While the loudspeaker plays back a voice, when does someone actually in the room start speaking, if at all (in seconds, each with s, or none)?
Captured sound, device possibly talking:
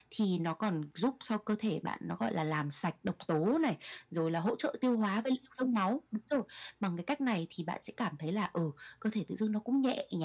none